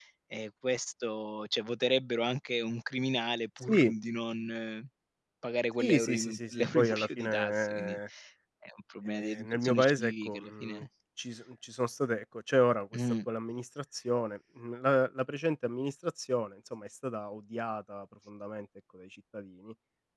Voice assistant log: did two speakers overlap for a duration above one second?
Yes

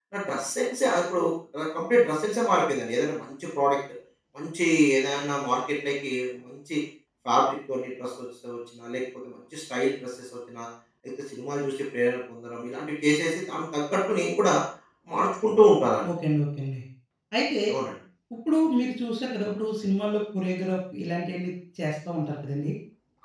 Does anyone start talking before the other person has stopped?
No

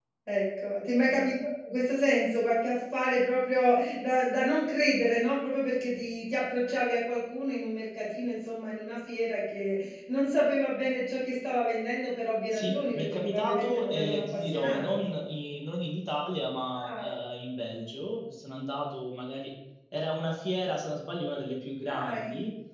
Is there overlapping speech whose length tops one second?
Yes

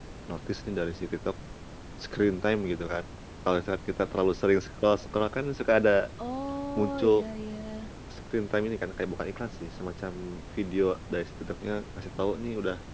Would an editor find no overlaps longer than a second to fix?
Yes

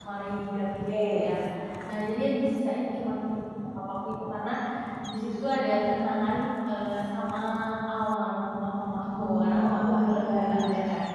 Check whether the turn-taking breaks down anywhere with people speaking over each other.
Yes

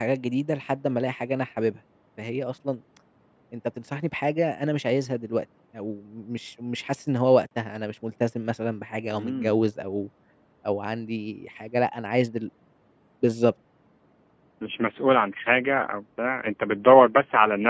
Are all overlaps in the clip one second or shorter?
Yes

